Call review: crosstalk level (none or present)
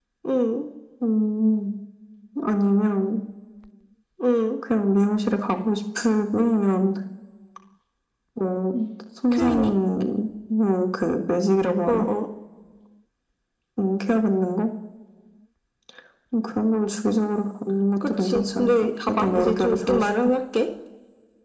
present